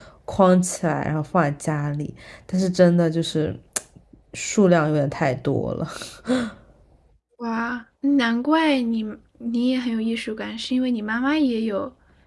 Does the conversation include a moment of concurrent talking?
No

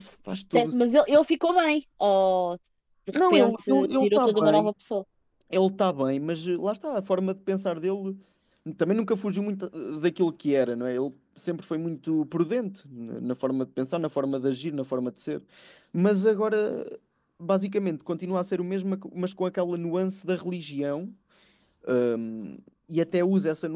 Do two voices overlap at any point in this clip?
Yes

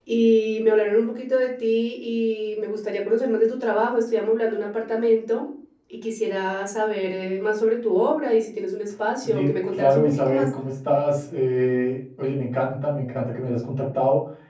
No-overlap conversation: No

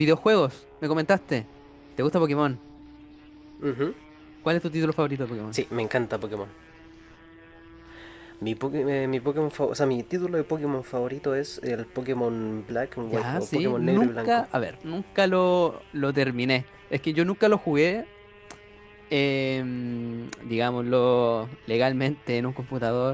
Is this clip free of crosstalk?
No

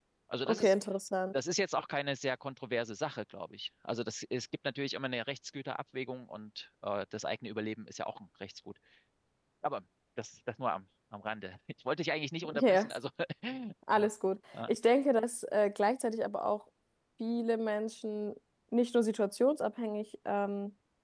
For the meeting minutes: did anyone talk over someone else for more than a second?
No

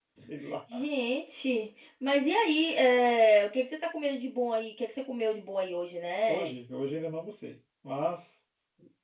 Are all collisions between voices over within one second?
Yes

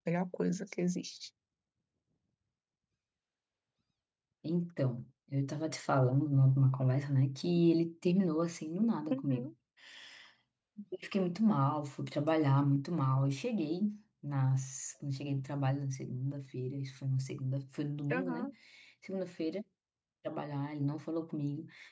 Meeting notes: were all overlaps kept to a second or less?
Yes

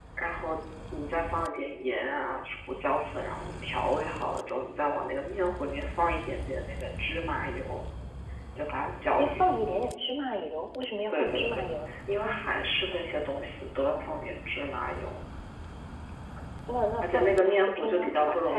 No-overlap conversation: No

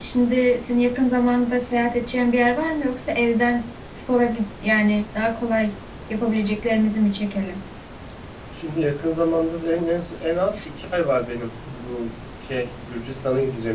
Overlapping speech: No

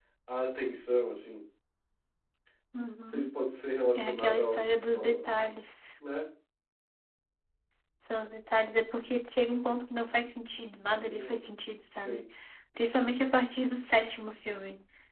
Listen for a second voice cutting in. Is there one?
Yes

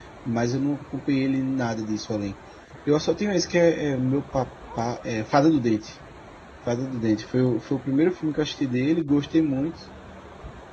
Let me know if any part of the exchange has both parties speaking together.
No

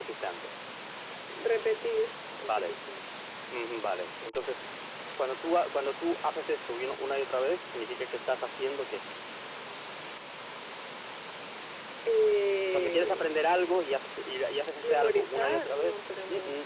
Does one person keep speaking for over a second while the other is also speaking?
Yes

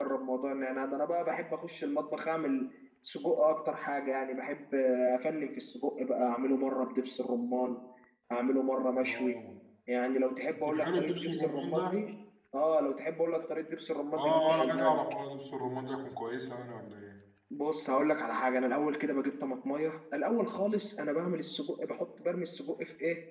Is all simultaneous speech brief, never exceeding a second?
No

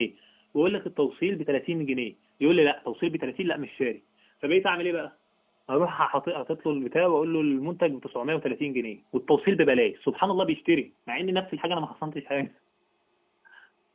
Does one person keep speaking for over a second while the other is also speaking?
No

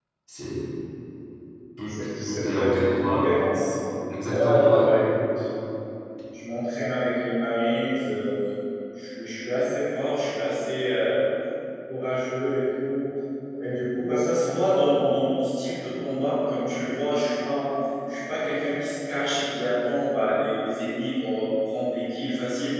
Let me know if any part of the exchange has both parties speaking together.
Yes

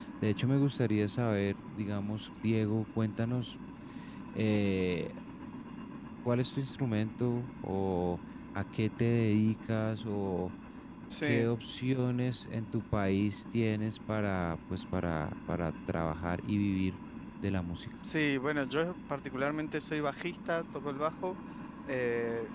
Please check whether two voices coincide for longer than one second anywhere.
No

